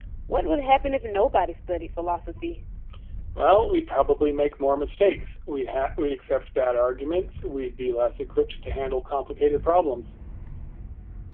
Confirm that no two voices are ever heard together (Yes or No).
Yes